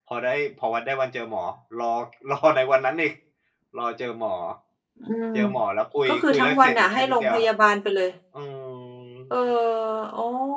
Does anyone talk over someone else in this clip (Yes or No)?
Yes